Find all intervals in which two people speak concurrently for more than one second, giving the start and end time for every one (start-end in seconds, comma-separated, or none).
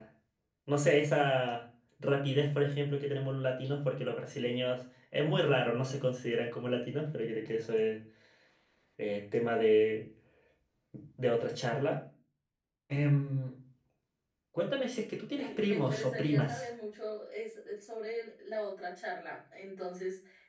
15.4-16.7